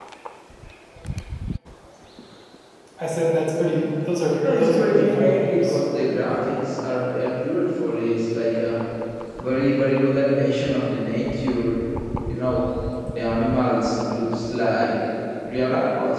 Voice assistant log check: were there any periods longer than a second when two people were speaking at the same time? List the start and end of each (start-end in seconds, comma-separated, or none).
4.3-5.8